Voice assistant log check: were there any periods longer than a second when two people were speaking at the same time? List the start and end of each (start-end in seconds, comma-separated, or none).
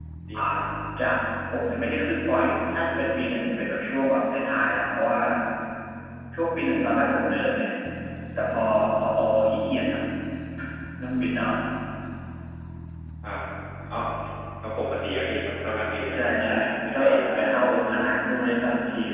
16.1-17.8